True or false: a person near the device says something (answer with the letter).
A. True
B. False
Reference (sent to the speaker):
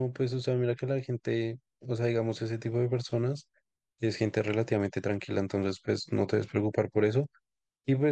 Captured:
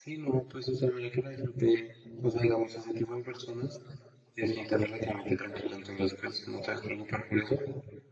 B